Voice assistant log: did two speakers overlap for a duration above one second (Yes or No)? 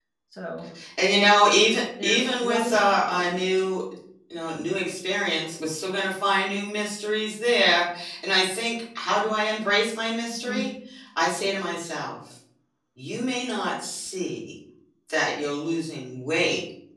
Yes